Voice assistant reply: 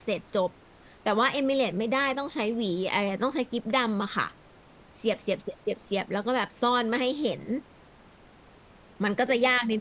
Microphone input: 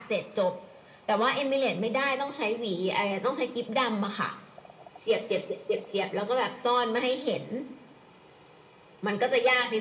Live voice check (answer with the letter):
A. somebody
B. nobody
B